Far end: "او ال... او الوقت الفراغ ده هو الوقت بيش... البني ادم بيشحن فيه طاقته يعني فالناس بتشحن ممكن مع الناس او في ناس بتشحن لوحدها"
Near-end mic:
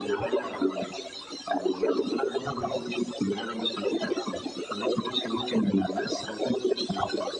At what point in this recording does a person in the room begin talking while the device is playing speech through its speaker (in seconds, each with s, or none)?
none